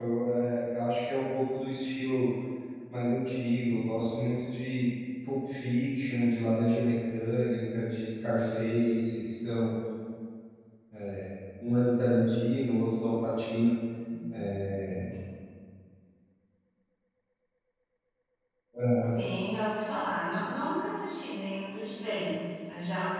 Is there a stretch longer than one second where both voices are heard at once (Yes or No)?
No